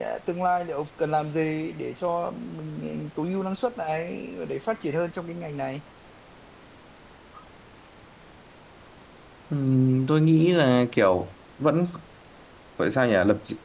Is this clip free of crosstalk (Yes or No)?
Yes